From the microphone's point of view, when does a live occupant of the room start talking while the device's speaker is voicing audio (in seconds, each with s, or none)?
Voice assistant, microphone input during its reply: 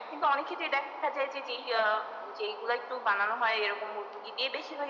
none